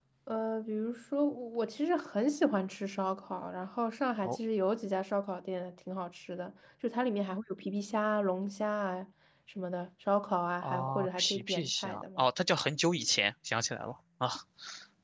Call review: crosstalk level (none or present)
present